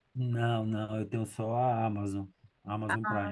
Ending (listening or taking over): taking over